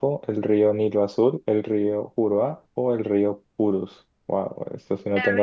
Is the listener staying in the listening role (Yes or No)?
No